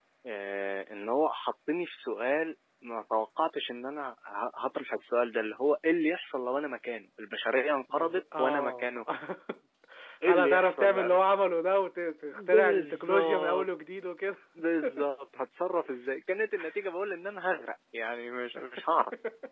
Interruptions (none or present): present